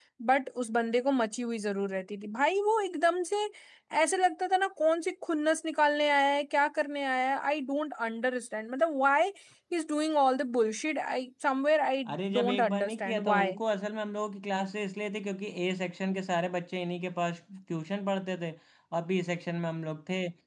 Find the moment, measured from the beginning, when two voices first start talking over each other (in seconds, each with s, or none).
12.1 s